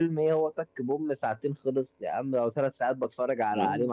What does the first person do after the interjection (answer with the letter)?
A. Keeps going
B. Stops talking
B